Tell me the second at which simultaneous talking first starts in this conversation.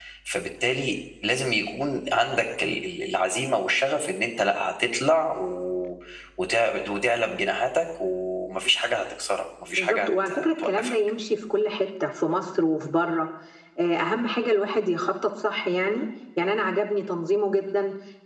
9.7 s

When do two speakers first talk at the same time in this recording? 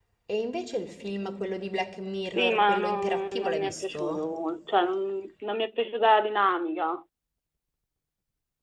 2.4 s

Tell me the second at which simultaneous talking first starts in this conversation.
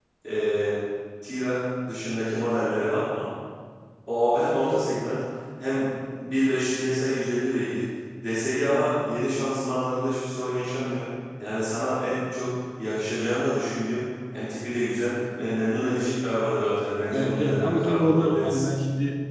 17.1 s

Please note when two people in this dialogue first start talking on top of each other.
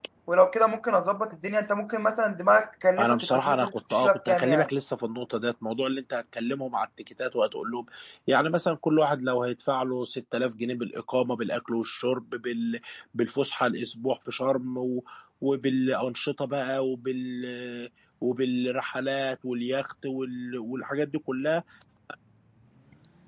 3.0 s

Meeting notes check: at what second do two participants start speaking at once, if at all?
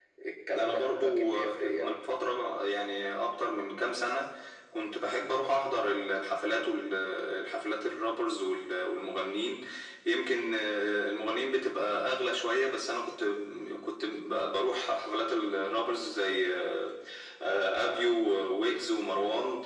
0.5 s

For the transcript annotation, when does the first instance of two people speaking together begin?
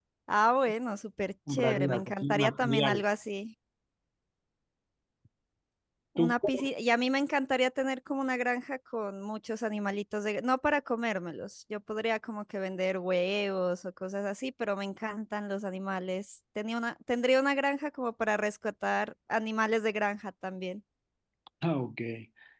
1.5 s

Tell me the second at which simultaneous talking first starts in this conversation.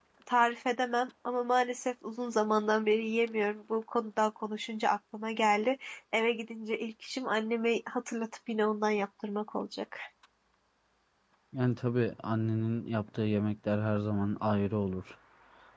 none

